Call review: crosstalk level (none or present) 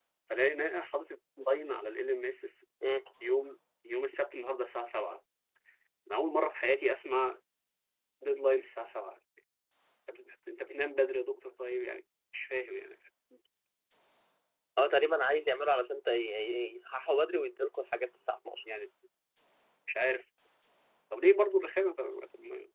none